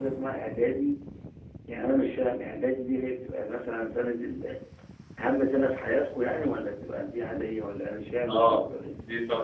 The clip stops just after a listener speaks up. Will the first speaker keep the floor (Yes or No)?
No